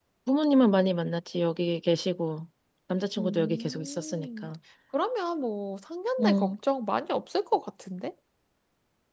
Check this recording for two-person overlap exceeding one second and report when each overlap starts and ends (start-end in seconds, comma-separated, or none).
3.2-4.5